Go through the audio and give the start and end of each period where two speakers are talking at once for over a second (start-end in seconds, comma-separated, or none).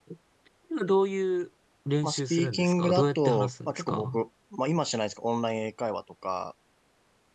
2.0-4.2